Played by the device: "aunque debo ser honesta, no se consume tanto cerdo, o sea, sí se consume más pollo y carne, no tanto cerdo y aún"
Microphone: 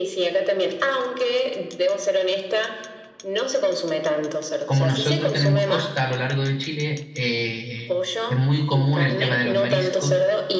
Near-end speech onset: 4.6 s

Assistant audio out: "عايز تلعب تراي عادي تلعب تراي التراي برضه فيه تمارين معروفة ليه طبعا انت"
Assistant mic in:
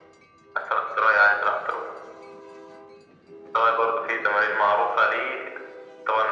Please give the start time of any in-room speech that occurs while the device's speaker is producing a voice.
none

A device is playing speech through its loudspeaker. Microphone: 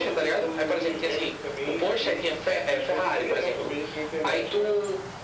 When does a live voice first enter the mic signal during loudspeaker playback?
none

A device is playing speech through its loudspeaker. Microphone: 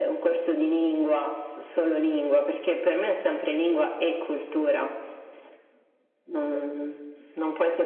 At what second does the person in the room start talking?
none

